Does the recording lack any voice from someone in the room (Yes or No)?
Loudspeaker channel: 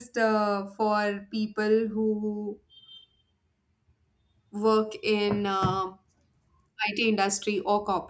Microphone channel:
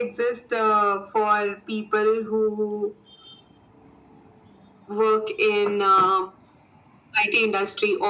Yes